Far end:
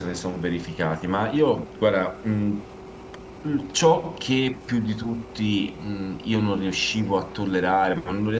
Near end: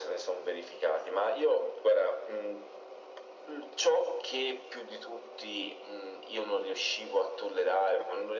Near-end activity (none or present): none